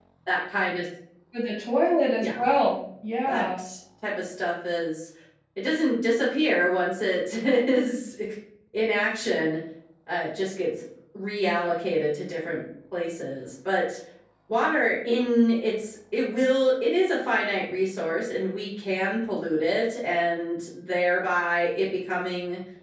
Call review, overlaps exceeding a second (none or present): none